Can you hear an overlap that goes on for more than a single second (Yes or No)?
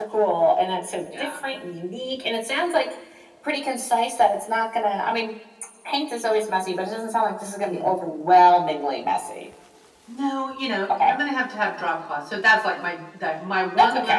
No